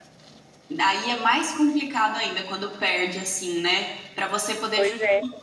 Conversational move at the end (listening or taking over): listening